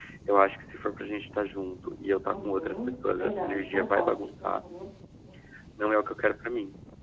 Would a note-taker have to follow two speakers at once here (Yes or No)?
Yes